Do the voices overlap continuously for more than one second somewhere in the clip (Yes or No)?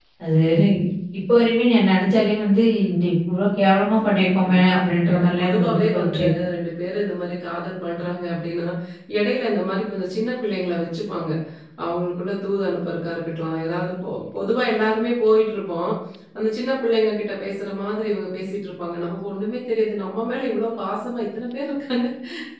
Yes